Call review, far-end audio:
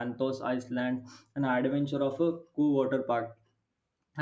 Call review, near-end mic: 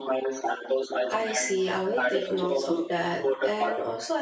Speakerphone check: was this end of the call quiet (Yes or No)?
No